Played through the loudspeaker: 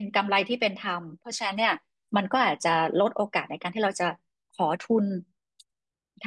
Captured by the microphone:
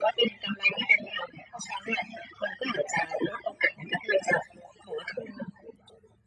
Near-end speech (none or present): none